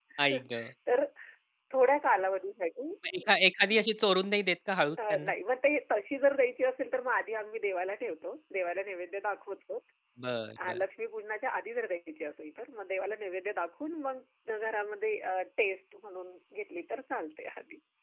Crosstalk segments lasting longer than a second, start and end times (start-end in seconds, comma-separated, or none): none